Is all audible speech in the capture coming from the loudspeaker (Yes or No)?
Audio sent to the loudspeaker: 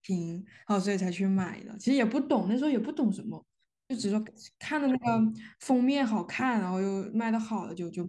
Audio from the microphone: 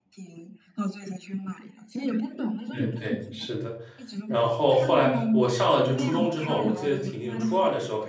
No